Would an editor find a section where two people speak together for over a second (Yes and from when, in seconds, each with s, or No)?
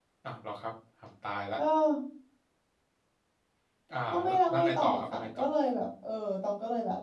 Yes, from 4.1 s